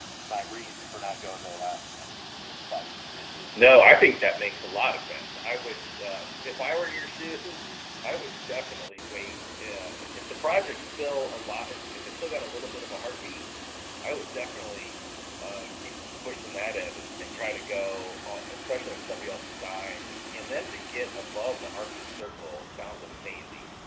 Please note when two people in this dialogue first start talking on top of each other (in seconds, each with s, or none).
3.5 s